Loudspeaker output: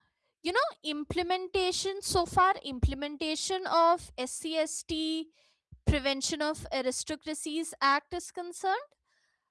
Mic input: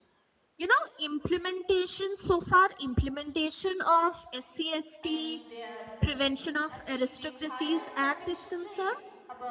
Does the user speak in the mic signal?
Yes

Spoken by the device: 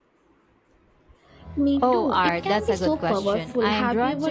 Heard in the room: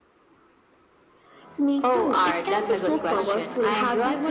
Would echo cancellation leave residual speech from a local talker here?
Yes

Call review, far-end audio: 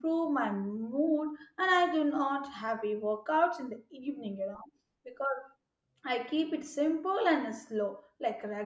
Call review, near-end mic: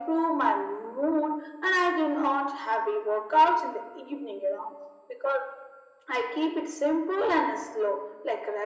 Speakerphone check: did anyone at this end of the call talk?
No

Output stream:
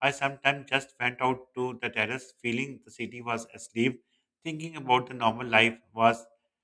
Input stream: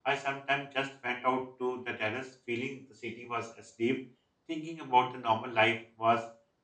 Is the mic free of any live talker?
Yes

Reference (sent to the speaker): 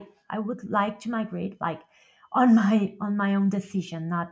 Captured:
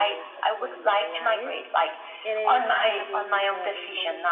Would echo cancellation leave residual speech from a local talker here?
Yes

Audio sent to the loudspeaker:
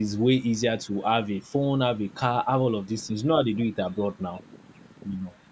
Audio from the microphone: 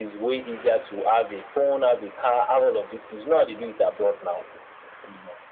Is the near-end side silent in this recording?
Yes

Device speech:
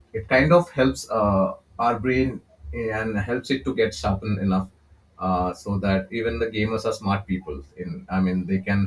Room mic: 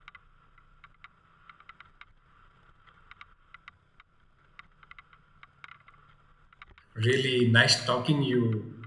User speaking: Yes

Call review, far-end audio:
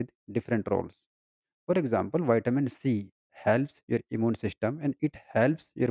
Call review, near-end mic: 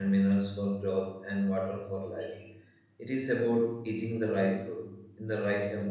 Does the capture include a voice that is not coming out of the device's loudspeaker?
Yes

